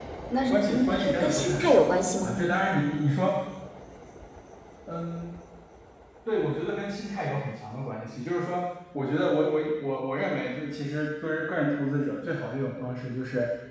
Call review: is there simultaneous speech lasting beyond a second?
Yes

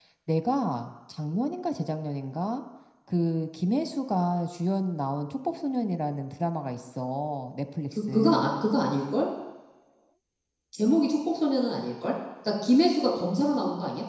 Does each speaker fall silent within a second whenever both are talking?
Yes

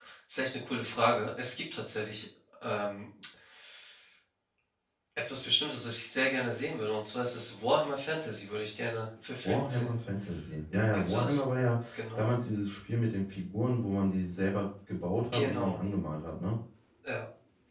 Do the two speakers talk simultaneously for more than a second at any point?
No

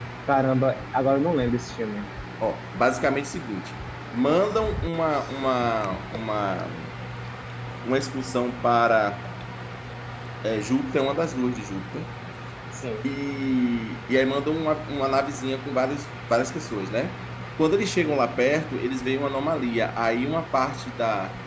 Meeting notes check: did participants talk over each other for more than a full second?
No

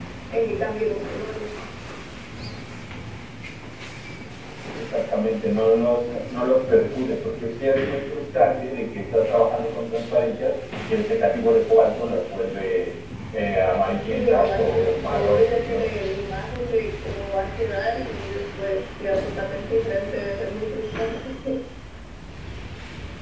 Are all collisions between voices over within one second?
No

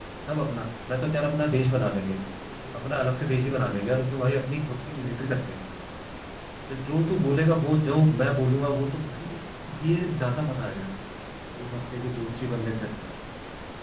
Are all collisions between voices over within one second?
Yes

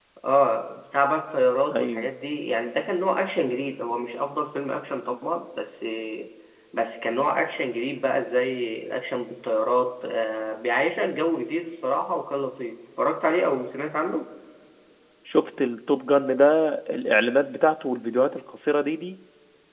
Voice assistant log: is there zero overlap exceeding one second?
Yes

